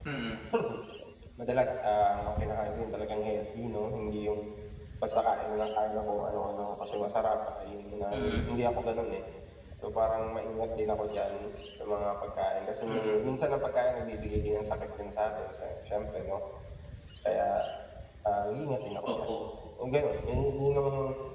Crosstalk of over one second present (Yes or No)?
No